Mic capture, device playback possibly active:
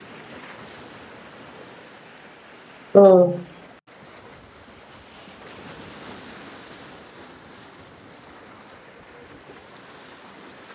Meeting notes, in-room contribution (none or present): present